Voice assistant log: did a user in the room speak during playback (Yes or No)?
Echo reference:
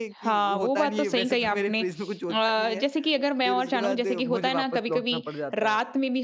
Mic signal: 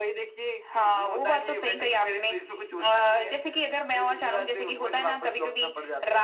No